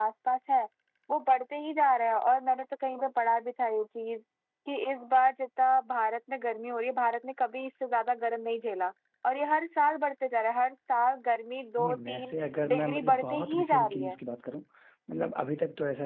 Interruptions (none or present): present